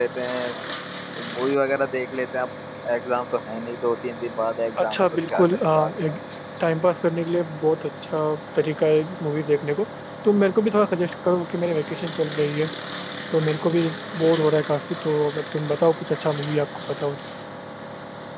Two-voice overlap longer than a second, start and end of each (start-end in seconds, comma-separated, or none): 4.8-6.2